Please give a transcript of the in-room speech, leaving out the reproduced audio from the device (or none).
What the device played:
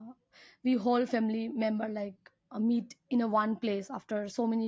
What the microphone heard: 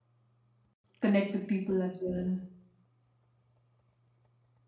connect with people as well.